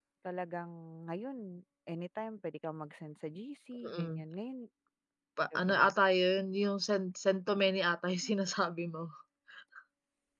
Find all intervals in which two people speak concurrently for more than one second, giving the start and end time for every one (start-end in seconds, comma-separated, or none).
none